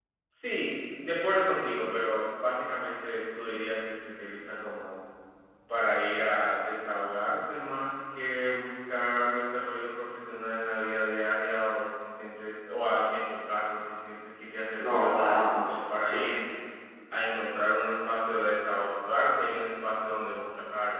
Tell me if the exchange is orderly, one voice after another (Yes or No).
No